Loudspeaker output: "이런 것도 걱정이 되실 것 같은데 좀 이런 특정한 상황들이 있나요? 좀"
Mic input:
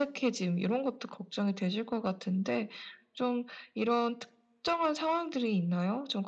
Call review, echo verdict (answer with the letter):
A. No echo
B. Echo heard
B